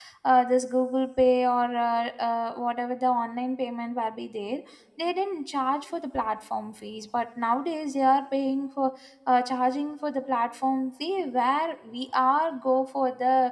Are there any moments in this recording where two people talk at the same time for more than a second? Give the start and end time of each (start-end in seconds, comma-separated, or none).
none